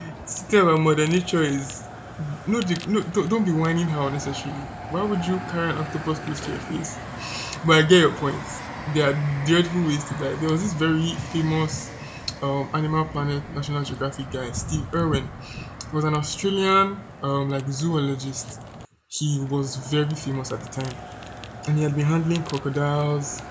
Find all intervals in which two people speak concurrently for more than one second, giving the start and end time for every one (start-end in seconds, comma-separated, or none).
none